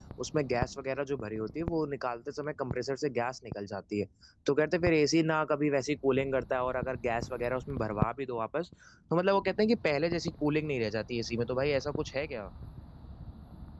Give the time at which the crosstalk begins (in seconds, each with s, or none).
none